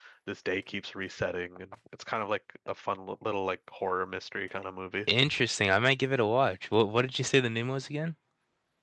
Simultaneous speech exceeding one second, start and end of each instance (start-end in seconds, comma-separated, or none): none